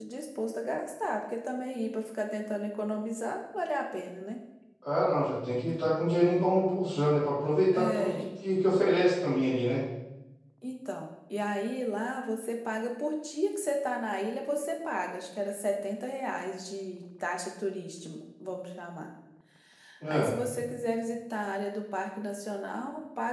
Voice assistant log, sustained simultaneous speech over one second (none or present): none